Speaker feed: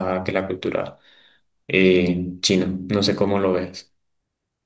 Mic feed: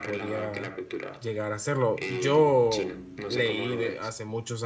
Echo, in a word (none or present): present